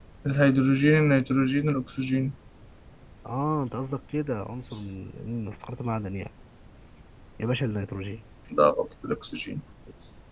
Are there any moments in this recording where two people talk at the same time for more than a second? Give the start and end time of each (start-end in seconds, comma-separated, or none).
none